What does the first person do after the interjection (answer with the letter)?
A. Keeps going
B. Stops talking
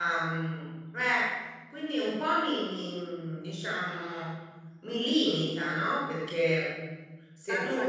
A